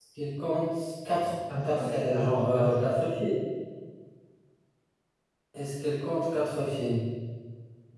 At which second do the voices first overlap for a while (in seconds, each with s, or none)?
1.5 s